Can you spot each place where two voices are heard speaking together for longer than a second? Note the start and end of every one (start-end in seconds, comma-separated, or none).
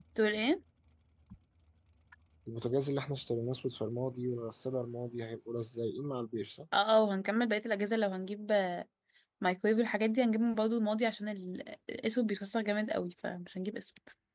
none